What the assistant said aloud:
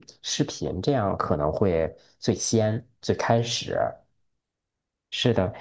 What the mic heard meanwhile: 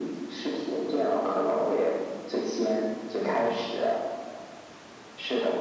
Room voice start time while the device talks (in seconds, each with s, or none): 3.2 s